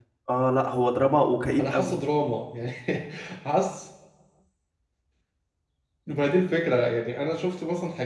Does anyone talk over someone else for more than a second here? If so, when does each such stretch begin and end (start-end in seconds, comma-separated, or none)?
none